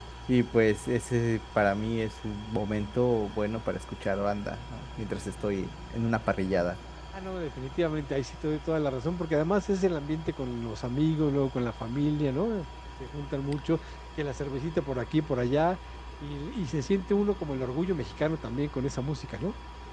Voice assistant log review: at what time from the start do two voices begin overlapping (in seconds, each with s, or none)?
none